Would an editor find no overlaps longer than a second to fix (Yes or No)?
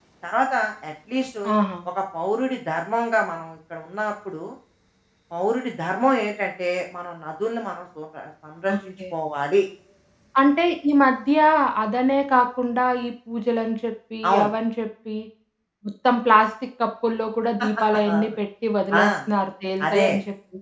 Yes